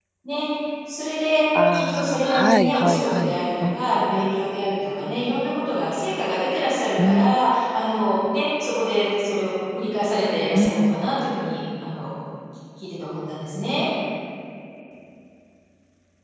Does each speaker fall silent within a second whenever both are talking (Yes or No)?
No